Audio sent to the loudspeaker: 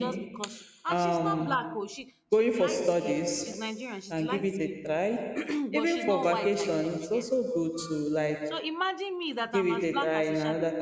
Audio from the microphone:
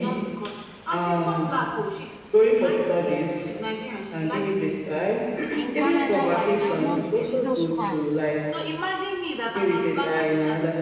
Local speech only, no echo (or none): You know, in Canada, the amount Jesus Christ.